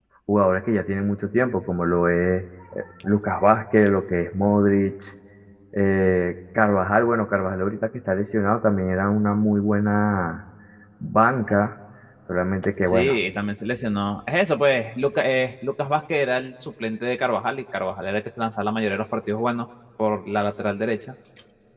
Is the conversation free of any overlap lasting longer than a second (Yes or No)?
Yes